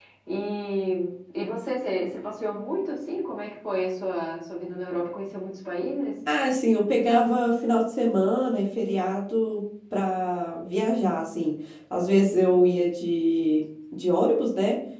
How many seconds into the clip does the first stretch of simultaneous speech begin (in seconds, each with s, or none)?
none